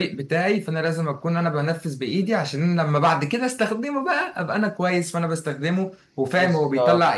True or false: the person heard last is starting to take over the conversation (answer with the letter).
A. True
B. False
B